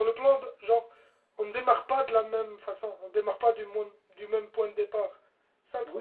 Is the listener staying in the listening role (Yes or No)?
No